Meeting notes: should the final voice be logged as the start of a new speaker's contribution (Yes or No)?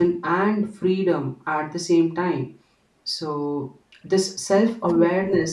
No